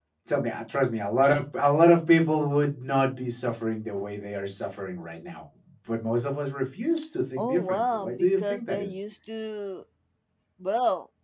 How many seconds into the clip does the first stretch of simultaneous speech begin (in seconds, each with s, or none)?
7.4 s